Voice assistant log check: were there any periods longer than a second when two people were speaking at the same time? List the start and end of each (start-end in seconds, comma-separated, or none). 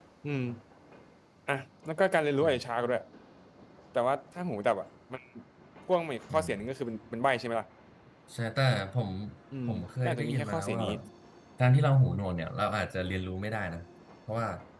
9.7-10.9